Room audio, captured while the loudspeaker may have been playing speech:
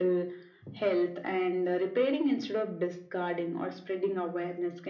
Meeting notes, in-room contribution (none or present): none